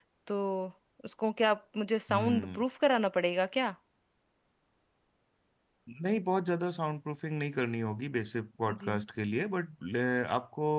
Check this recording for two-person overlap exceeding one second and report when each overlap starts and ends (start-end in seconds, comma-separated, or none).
none